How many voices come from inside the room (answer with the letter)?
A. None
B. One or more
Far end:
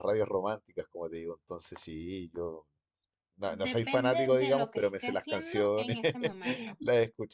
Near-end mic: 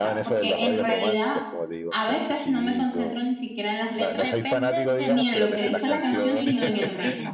B